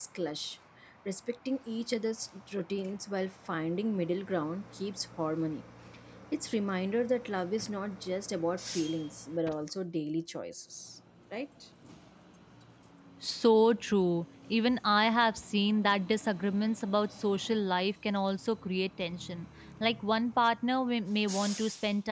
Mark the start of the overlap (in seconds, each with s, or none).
none